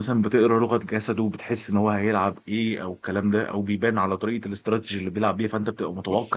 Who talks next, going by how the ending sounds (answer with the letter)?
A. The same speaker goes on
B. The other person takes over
B